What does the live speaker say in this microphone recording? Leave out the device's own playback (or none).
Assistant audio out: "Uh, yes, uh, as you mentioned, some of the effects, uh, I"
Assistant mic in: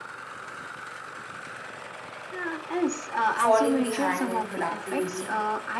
falling behind in productivity,